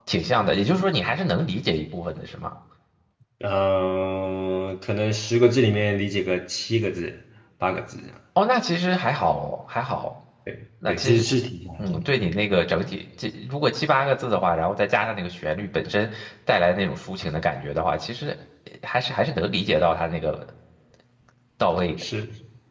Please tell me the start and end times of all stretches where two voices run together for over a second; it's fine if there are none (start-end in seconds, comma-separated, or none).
none